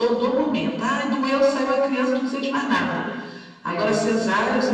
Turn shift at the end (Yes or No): No